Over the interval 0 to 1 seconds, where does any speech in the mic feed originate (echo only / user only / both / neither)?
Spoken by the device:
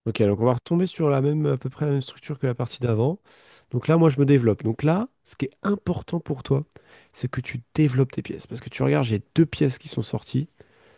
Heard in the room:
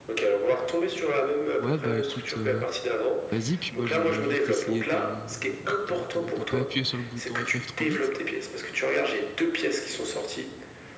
echo only